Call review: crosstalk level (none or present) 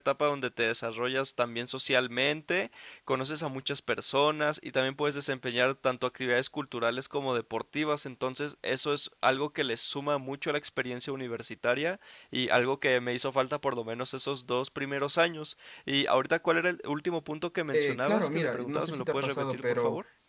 present